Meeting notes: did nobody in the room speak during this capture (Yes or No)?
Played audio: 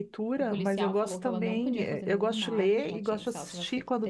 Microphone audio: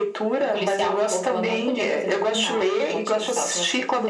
Yes